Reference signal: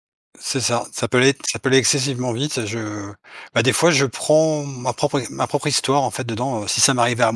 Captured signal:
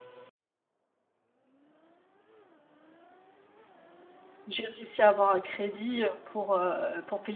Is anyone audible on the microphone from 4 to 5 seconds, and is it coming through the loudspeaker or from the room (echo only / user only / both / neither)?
user only